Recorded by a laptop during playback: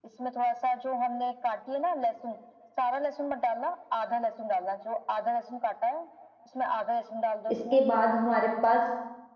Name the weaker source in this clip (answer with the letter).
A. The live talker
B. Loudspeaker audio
B